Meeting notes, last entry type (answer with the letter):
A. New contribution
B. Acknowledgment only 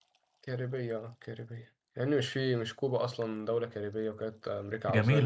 A